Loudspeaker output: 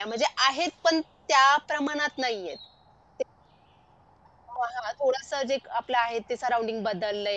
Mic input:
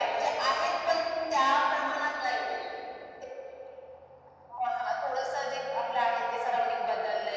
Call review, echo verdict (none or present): present